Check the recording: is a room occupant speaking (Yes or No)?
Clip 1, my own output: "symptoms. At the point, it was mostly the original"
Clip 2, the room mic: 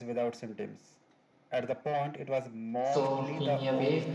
Yes